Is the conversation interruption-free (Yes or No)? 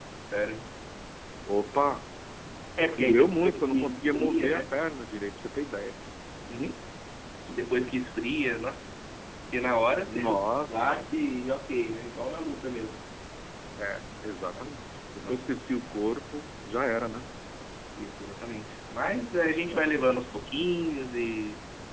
No